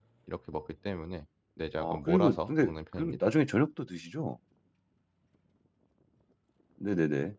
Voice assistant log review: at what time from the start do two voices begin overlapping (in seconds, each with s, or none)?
1.8 s